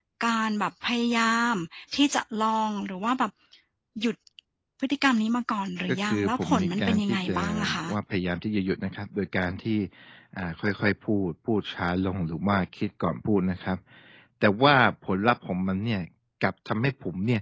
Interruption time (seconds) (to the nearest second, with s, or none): 6 s